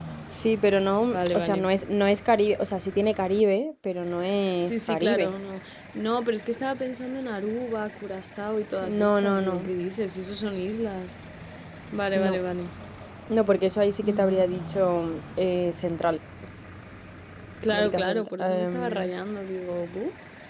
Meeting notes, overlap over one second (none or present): present